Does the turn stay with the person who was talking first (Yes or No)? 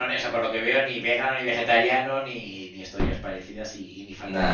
Yes